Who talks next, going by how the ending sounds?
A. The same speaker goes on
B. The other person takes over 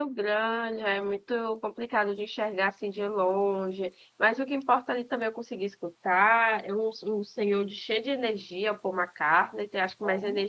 A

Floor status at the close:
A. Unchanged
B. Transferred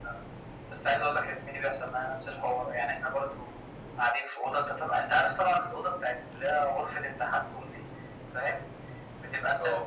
A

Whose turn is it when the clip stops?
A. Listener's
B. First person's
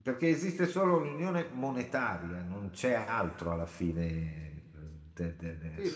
A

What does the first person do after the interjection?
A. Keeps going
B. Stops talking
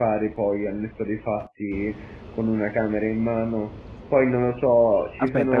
B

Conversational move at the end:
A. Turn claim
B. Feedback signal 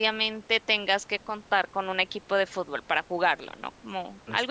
A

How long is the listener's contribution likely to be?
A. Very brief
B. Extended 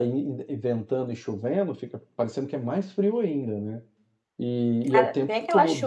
B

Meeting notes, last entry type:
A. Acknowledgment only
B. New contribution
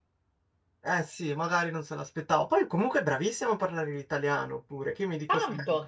B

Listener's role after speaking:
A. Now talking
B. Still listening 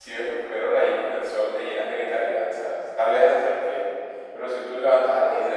B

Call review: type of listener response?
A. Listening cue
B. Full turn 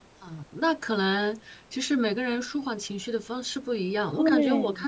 A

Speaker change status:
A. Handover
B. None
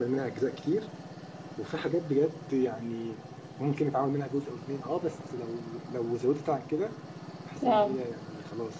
B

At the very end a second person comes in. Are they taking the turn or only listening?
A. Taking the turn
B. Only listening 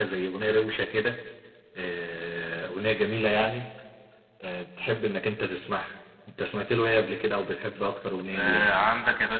A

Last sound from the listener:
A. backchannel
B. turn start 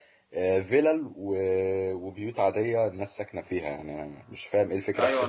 B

